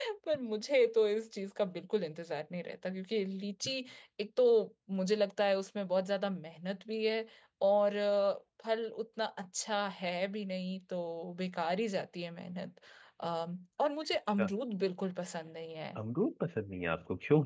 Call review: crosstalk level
none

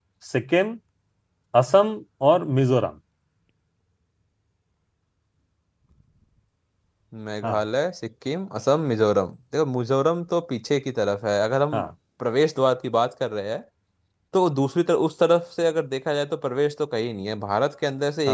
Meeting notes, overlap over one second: none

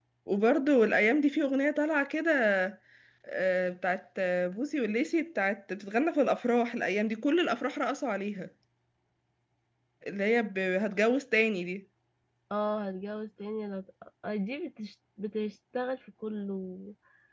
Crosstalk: none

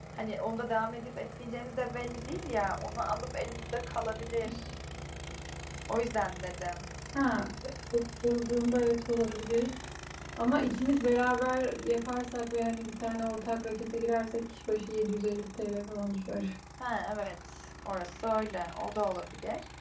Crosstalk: none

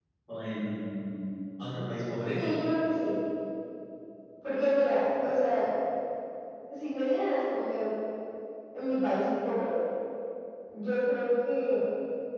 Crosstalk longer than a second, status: none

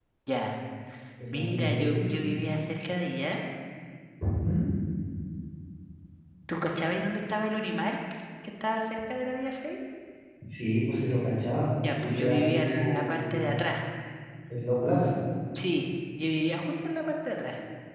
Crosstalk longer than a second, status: present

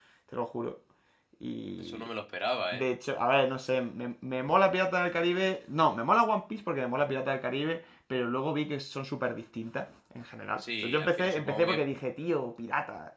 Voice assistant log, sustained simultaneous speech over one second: present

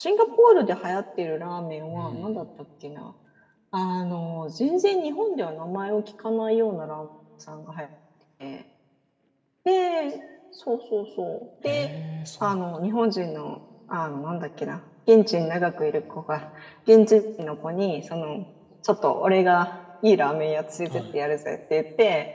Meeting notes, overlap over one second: none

